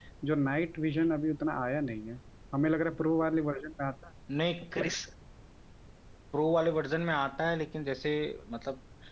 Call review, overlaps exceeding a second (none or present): none